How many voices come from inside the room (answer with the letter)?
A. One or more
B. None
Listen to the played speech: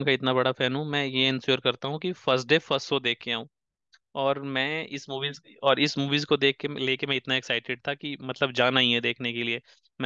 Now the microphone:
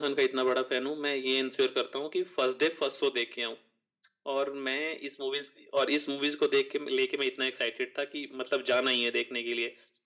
B